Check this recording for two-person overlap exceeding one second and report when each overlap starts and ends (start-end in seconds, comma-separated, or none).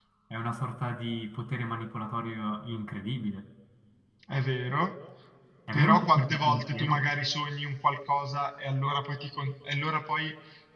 5.7-7.0